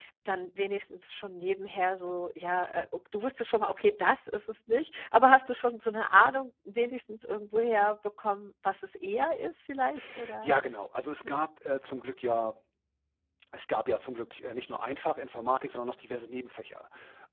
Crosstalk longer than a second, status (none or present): none